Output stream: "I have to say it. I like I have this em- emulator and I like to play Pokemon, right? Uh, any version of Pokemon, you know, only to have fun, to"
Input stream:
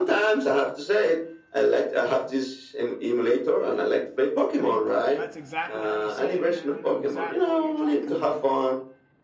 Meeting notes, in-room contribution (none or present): present